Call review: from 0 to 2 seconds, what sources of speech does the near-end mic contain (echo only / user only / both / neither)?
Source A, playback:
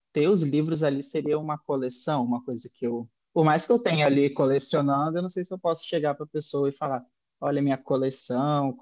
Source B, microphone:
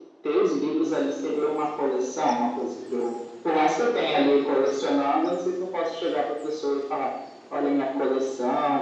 echo only